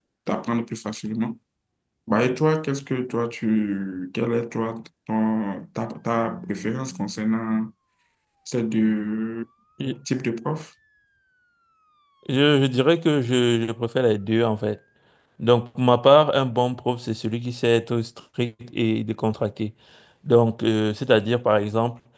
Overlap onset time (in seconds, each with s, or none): none